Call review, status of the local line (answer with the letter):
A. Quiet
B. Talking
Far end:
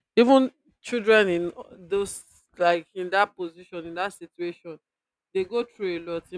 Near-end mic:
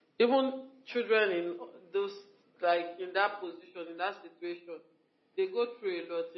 A